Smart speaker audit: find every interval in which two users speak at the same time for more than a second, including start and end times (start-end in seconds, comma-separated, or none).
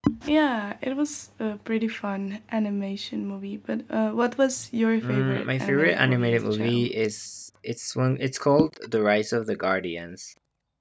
5.0-6.9